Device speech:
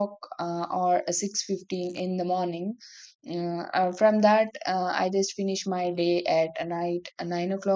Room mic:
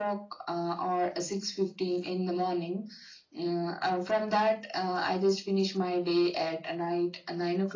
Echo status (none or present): present